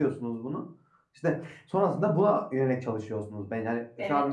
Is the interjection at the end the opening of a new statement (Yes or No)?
Yes